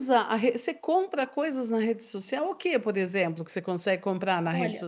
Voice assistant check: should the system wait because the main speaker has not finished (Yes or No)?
No